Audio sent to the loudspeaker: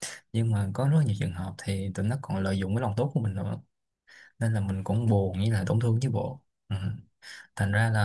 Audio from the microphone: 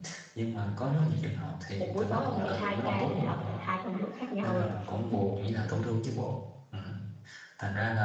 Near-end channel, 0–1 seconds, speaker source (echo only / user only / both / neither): echo only